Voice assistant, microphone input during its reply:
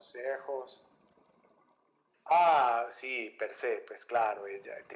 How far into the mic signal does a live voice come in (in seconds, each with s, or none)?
none